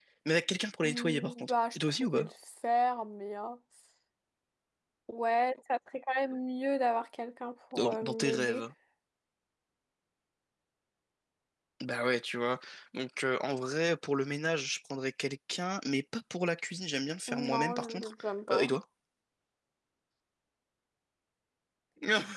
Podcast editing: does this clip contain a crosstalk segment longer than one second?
Yes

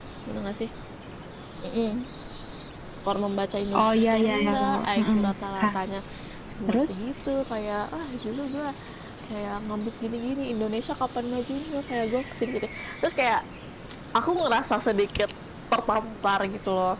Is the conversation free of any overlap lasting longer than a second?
No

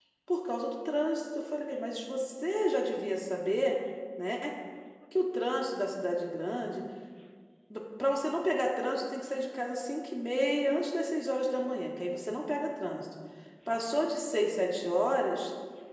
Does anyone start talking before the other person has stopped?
No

